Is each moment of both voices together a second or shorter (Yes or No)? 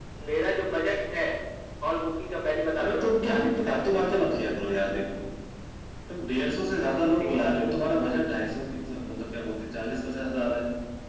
No